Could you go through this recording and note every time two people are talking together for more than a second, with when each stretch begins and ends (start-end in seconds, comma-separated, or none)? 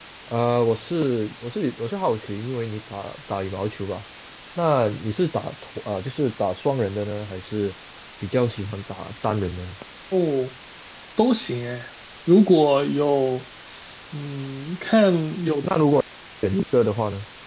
none